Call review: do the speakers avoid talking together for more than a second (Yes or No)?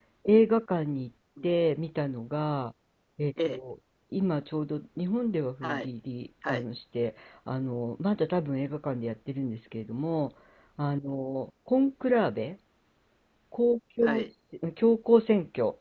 Yes